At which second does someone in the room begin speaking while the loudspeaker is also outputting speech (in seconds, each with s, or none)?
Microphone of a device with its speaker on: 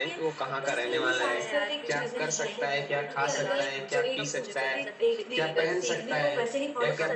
0.5 s